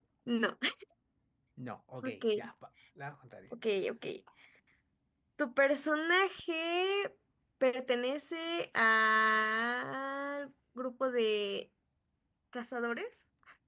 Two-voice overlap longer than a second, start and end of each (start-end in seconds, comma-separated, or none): none